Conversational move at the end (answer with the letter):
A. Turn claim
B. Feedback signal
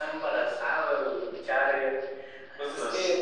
B